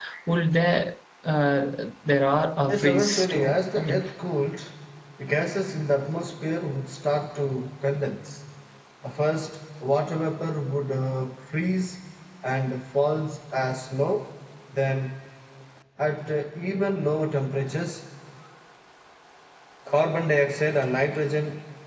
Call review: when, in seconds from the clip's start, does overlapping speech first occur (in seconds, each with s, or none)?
2.7 s